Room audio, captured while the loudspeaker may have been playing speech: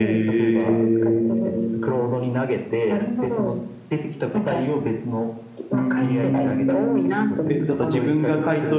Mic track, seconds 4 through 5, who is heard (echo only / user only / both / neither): echo only